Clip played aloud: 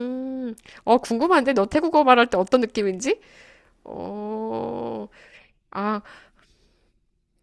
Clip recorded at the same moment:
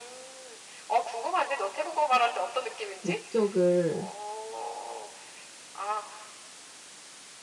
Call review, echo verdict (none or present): present